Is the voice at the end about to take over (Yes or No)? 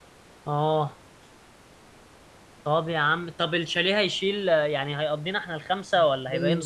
Yes